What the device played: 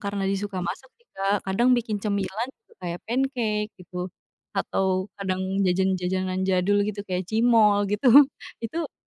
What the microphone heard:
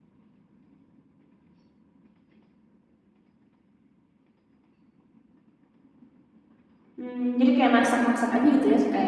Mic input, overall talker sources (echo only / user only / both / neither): user only